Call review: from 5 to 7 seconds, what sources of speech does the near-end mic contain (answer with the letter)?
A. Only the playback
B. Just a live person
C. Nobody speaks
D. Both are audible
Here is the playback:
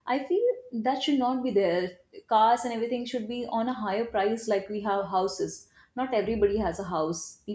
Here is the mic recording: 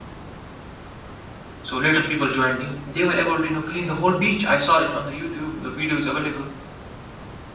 B